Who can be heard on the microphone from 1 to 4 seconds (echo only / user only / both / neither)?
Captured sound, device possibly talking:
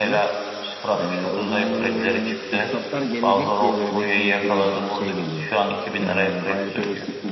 both